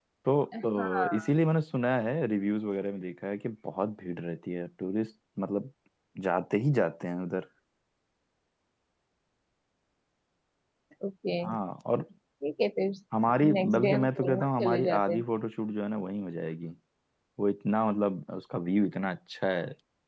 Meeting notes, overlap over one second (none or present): present